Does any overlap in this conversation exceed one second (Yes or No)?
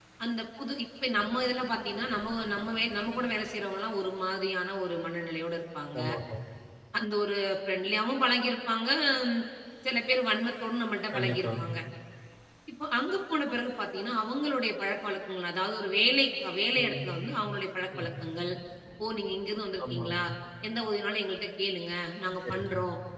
No